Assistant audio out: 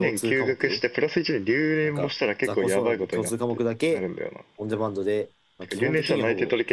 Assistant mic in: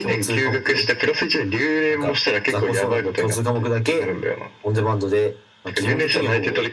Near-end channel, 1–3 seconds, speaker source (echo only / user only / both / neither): echo only